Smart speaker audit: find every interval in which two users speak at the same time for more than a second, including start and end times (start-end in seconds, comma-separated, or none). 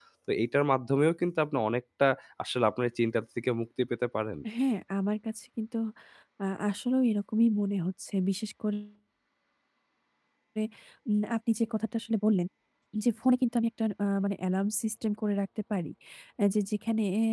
none